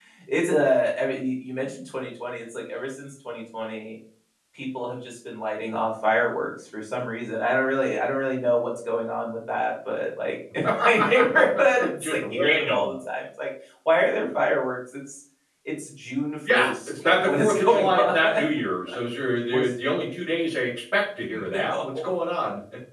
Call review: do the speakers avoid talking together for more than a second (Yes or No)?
No